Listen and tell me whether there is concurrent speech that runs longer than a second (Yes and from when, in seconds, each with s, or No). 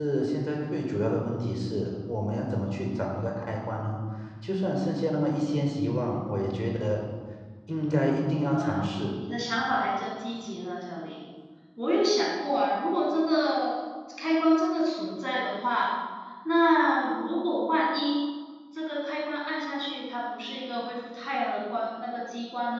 No